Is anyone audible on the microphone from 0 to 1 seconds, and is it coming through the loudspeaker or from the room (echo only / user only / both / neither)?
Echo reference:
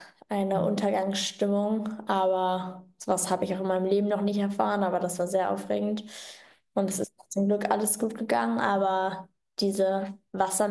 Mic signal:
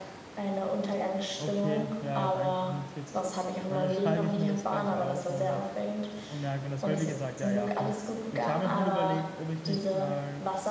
echo only